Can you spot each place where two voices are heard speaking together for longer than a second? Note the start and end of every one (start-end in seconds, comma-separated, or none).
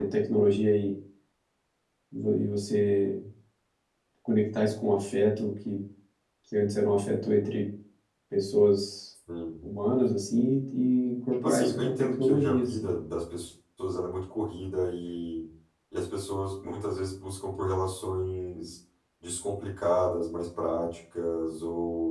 11.4-12.9